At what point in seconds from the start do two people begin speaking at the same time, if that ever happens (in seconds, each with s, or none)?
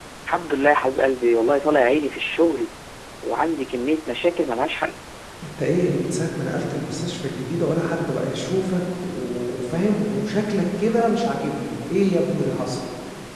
none